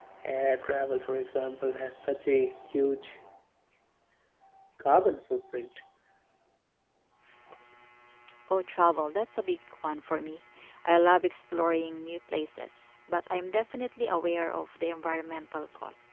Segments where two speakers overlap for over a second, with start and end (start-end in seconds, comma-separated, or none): none